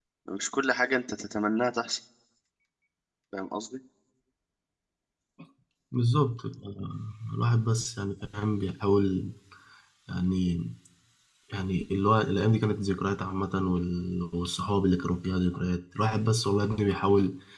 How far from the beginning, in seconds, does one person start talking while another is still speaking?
none

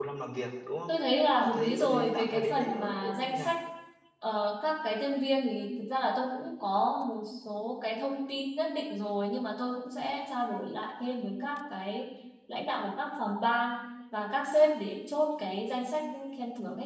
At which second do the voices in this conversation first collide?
1.4 s

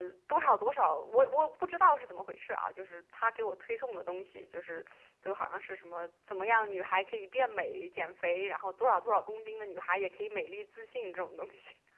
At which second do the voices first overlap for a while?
none

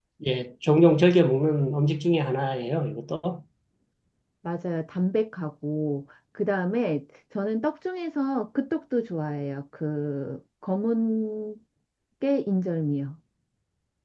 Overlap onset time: none

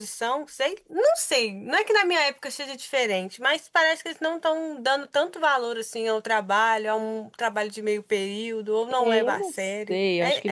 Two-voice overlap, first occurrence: 8.9 s

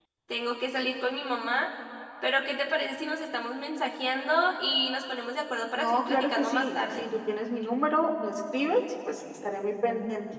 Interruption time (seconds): 5.8 s

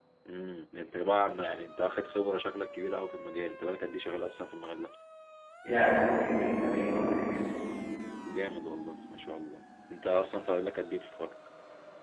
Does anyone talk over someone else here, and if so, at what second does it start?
none

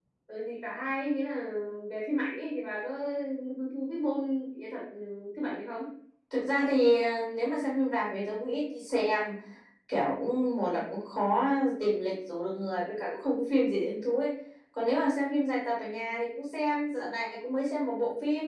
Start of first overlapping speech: none

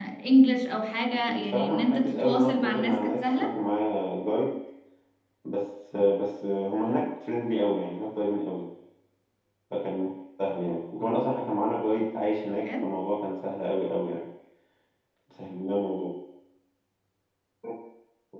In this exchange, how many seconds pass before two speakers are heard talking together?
1.3 s

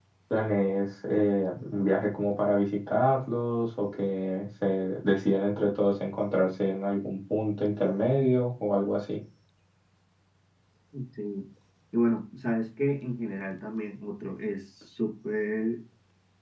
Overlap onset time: none

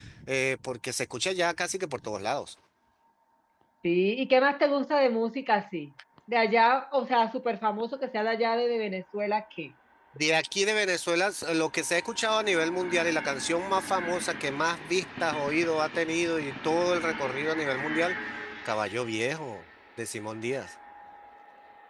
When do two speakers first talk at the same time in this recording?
none

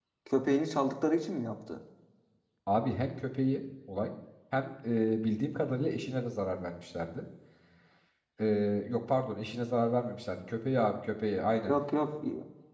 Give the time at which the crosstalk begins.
none

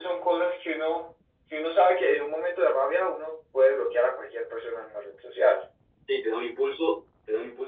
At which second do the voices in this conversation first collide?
none

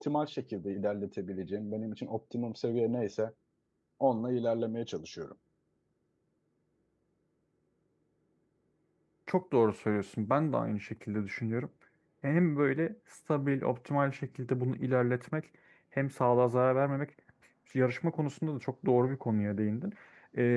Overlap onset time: none

